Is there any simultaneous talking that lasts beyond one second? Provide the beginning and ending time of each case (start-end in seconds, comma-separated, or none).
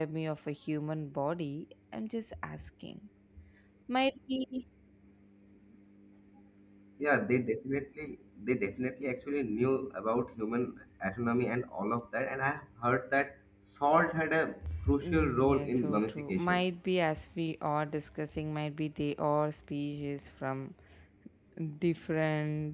15.0-16.6